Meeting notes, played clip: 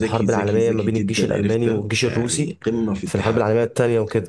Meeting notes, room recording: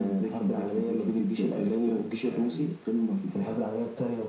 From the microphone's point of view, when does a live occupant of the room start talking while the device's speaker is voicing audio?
none

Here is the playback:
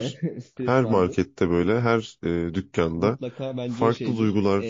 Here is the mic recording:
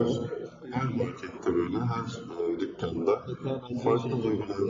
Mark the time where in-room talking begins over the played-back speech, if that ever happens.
none

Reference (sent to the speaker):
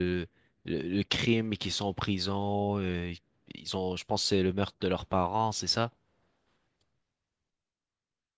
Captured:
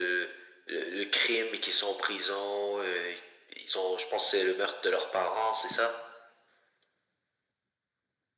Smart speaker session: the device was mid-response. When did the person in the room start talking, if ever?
none

